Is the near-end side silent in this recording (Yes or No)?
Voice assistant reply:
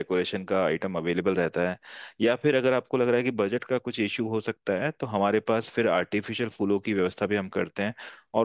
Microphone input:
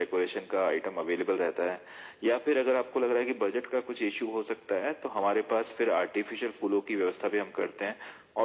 Yes